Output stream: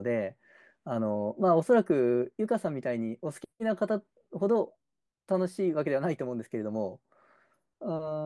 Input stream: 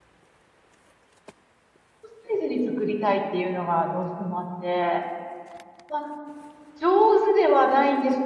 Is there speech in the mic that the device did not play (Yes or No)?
Yes